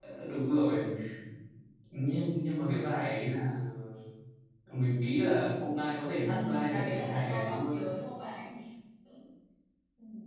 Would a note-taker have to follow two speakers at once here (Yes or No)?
Yes